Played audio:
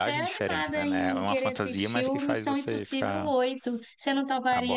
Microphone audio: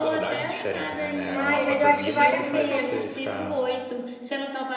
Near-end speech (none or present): present